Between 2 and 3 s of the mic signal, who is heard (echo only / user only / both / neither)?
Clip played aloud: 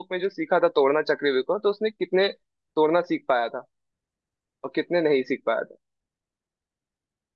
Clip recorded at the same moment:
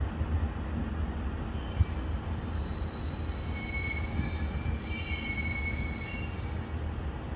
neither